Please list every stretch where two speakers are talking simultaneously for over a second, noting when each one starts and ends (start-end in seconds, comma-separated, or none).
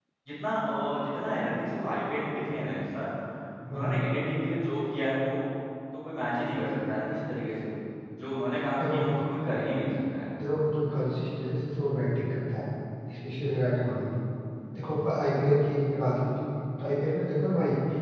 none